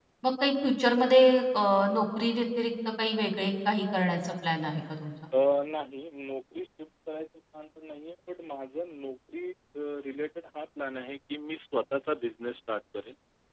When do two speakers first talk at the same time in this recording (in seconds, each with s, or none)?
none